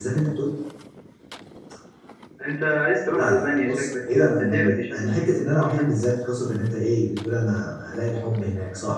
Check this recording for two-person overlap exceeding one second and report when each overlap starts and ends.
3.1-5.3

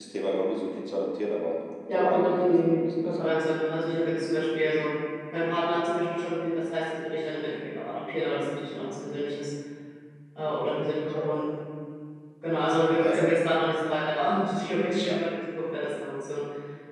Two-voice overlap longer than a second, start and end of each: 1.9-3.3

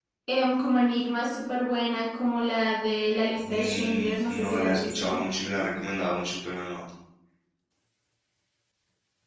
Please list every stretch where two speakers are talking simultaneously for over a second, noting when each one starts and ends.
3.4-5.2

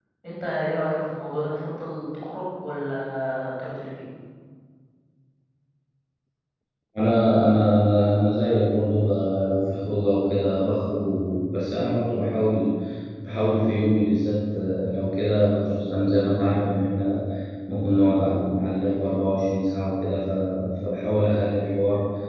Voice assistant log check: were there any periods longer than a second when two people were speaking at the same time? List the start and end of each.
none

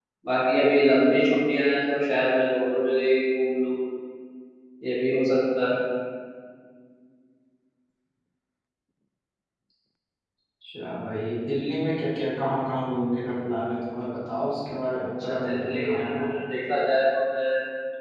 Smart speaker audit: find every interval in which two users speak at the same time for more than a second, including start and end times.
14.9-16.3

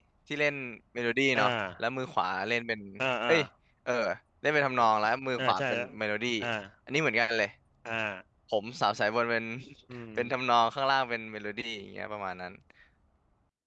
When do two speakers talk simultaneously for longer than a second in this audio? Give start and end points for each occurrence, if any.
none

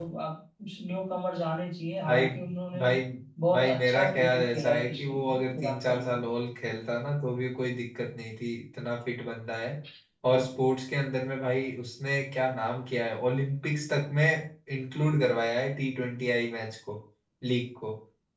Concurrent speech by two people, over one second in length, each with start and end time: 3.5-6.3

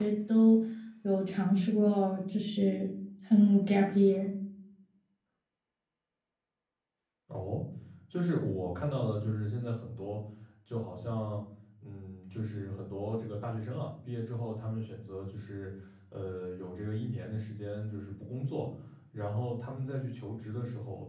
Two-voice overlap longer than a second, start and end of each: none

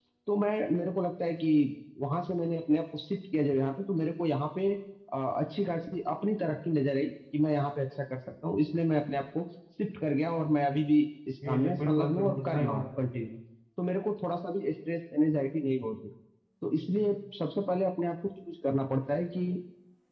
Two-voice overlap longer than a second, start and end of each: 11.5-12.8

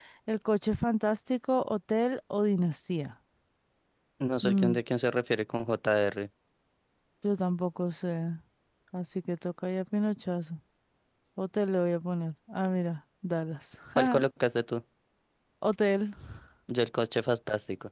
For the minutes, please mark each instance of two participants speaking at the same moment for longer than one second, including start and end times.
none

